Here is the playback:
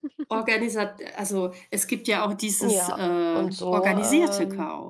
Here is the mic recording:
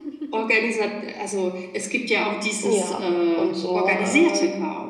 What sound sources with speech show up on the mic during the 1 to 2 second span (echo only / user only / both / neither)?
echo only